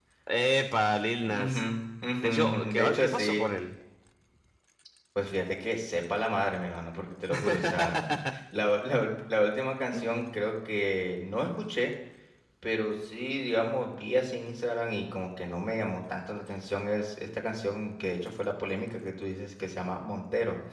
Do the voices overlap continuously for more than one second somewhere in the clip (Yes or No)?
Yes